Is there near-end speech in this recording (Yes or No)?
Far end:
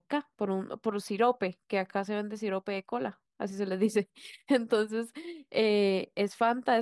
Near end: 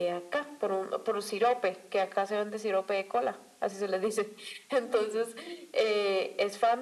Yes